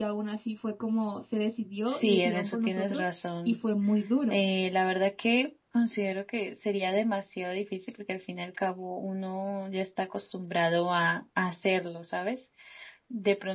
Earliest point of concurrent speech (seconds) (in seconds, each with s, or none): 1.9 s